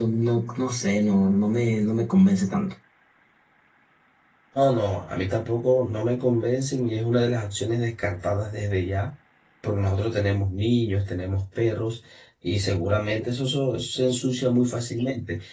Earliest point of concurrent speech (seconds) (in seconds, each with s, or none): none